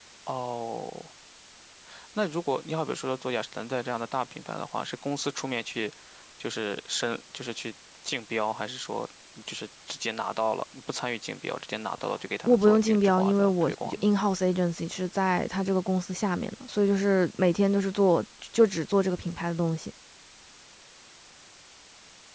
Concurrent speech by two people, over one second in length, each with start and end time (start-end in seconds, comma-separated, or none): 12.5-14.1